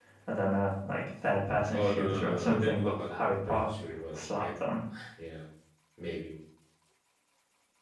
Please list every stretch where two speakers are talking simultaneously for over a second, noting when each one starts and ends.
1.7-3.7

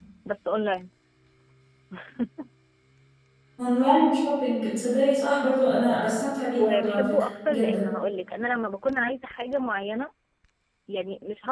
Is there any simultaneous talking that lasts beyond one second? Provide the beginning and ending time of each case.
6.6-7.9

